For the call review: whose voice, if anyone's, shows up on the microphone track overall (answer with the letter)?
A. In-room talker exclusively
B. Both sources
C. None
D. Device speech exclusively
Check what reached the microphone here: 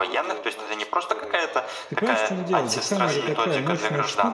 B